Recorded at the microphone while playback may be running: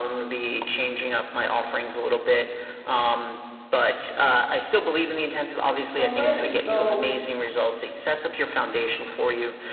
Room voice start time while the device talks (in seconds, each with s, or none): 6.0 s